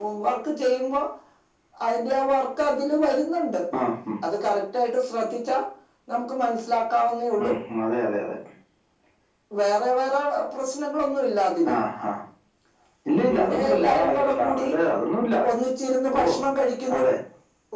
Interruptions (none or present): present